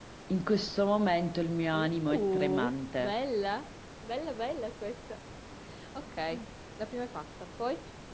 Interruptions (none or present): present